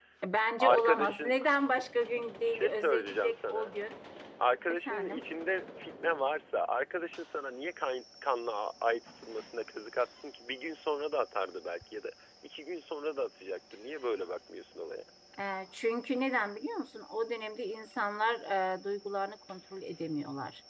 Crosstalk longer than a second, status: present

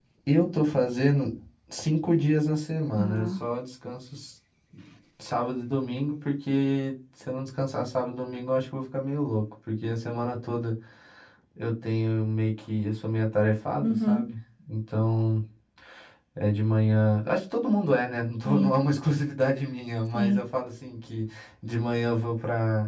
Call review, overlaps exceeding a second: none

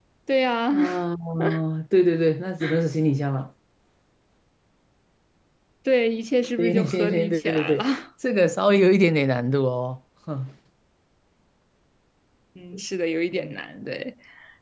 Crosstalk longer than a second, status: present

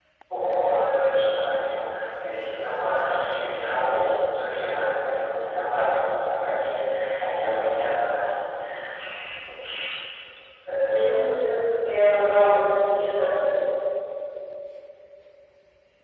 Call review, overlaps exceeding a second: none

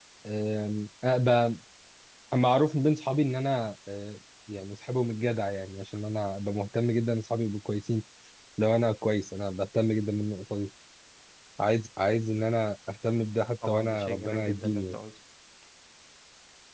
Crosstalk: present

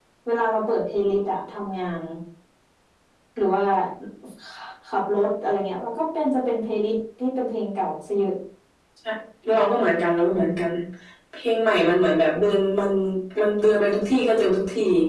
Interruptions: none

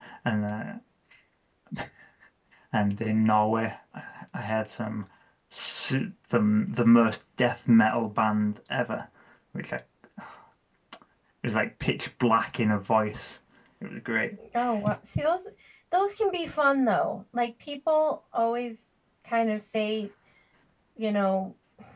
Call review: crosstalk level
none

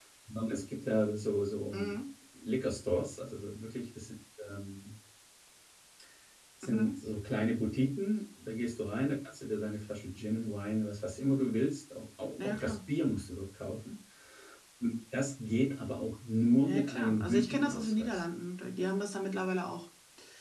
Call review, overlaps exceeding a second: present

